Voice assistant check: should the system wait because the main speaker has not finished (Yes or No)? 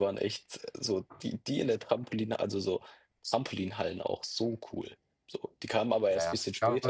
No